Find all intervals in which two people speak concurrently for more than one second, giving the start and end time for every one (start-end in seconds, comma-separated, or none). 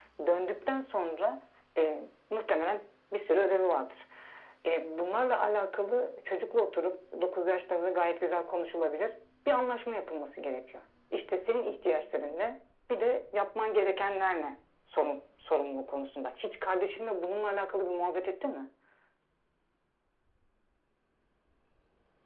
none